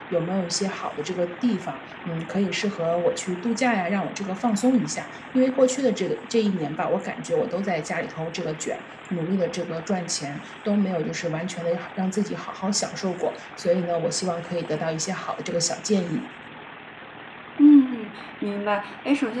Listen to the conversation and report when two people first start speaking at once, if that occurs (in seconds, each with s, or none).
none